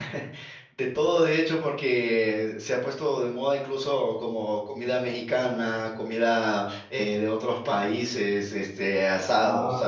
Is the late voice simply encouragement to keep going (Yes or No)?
Yes